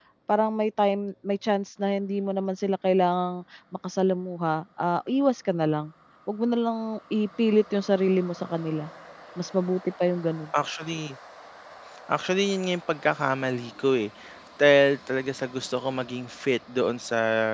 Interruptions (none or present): none